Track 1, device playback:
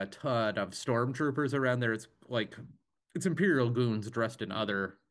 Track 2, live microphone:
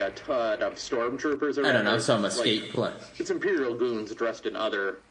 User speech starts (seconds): 2 s

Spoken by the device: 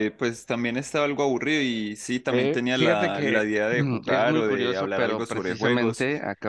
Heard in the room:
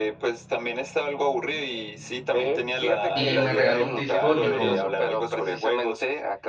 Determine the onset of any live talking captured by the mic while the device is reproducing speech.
3 s

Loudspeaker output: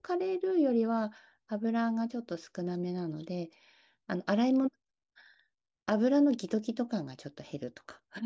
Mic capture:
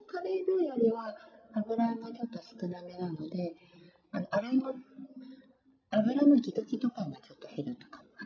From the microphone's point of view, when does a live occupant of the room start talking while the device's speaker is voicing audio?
none

